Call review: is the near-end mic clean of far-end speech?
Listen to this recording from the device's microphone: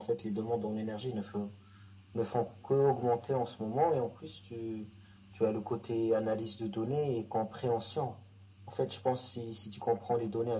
No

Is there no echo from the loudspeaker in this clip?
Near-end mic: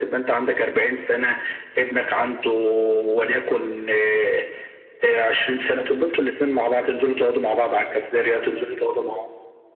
No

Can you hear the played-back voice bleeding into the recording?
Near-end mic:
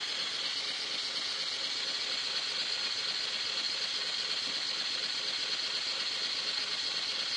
No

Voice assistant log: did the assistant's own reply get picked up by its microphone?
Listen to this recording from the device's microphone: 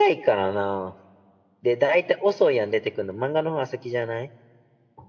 No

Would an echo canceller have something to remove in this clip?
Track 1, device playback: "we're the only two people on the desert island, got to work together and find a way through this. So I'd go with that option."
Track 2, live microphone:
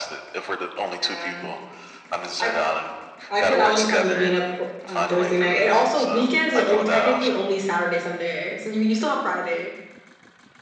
Yes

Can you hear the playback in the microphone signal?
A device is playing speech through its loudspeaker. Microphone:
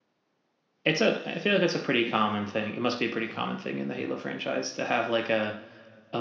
No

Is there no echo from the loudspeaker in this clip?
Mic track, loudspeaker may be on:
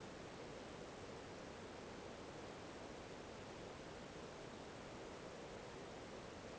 Yes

